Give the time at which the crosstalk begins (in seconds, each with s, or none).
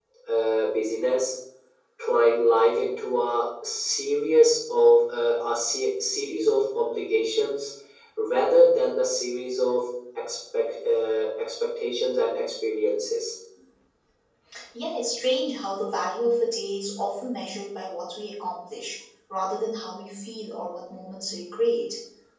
none